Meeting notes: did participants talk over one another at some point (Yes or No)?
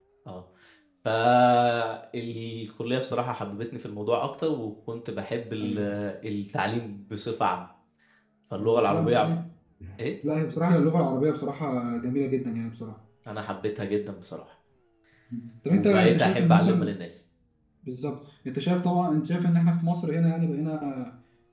Yes